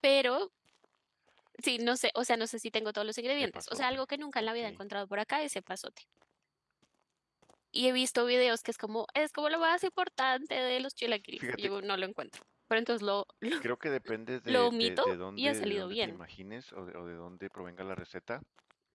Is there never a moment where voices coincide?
No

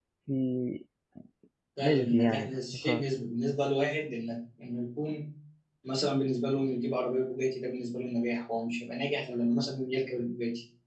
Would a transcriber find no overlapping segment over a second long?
No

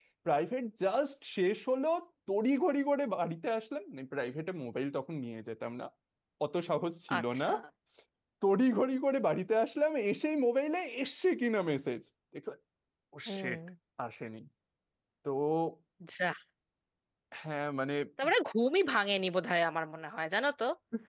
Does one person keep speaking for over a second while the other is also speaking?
No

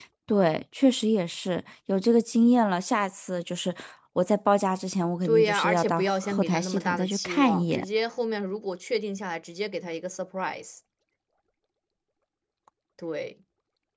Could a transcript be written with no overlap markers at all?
No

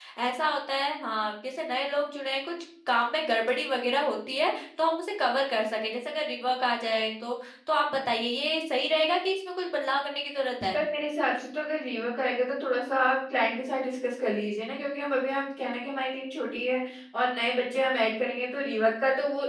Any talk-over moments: No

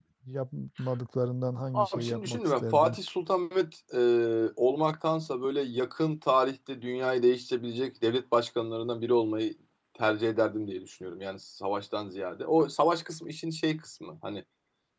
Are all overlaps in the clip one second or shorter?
No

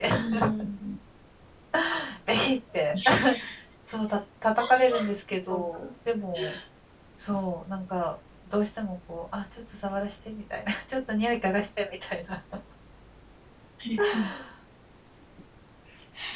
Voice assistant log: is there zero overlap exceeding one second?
Yes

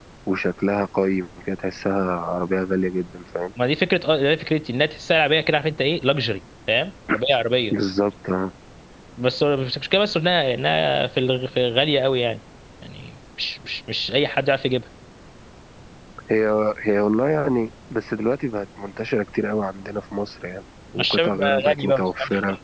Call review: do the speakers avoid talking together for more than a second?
No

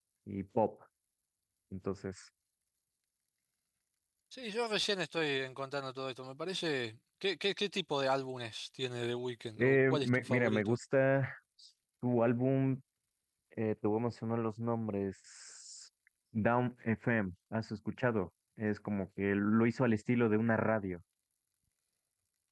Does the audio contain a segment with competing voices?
Yes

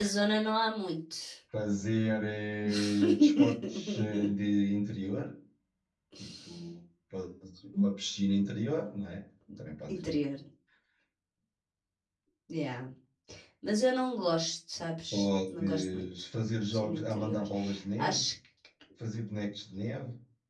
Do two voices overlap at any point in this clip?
Yes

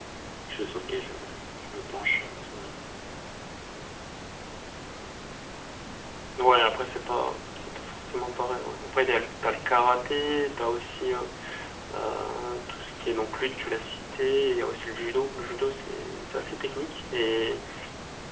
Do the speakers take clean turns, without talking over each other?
Yes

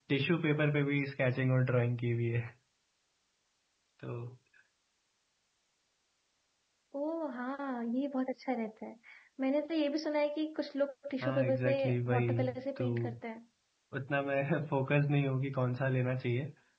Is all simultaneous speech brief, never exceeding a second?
No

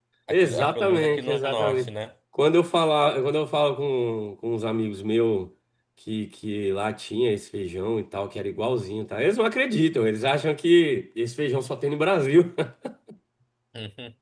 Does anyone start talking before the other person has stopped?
Yes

